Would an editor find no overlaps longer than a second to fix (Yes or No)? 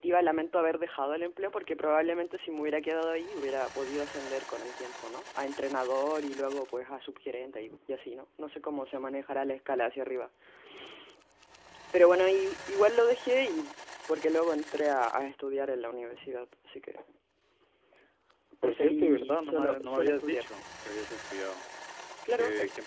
No